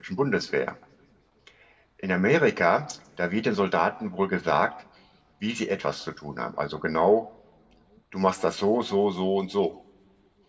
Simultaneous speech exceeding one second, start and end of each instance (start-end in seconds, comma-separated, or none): none